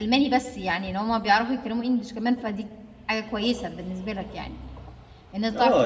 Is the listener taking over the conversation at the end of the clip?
Yes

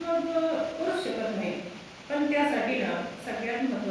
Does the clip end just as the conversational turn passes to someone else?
No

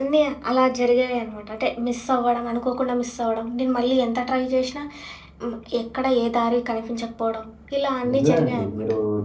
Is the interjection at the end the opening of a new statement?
Yes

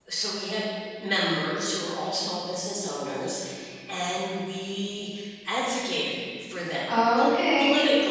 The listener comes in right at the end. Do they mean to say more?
No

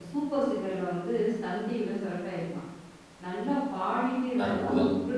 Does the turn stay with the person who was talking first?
Yes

